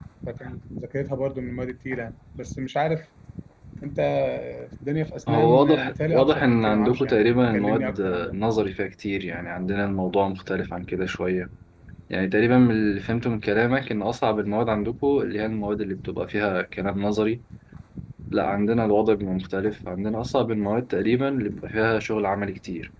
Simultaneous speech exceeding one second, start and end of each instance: 5.3-8.4

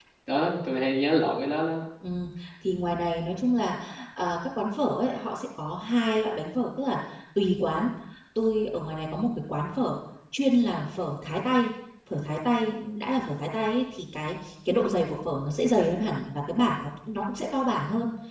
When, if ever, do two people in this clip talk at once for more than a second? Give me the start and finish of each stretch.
none

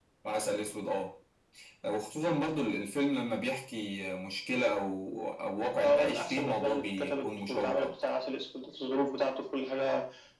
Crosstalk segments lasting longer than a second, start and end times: 5.8-7.9

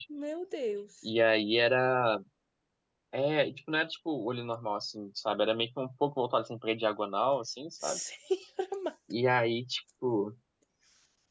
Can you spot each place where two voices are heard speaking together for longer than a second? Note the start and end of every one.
none

